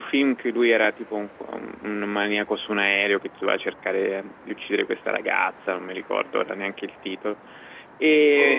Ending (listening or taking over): listening